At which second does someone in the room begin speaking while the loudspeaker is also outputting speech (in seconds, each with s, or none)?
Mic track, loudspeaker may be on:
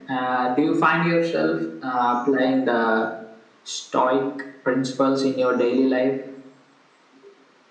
none